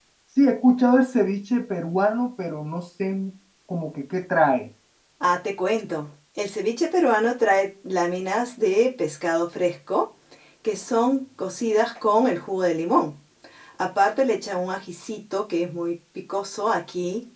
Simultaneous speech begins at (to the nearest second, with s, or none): none